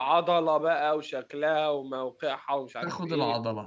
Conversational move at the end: taking over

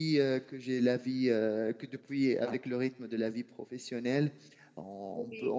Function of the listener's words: listening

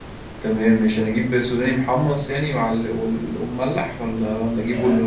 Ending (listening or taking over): taking over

